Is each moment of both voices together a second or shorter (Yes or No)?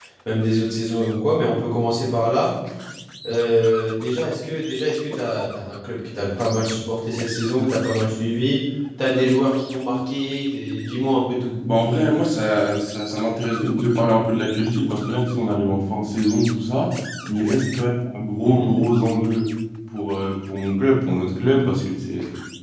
Yes